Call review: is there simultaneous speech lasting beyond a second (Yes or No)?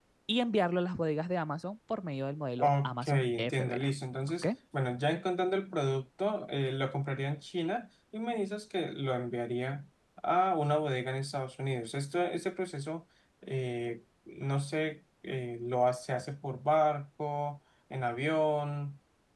Yes